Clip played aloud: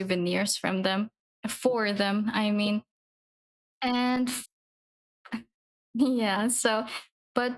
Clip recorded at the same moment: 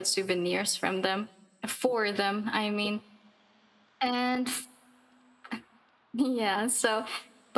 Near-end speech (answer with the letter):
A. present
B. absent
B